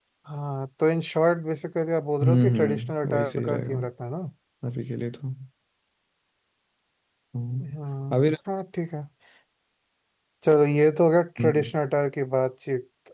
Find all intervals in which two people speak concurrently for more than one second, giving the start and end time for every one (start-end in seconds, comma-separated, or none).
2.2-3.8